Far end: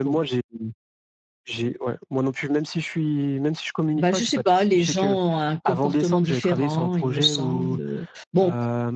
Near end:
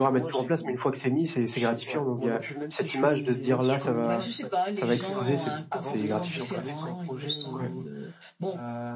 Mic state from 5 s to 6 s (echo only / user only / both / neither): both